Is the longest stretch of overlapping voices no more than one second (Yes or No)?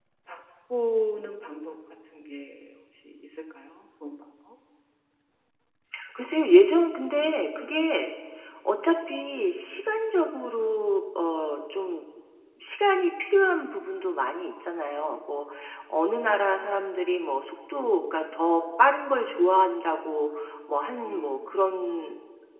Yes